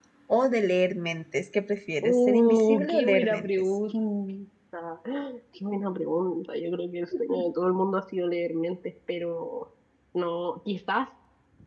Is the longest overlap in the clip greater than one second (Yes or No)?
Yes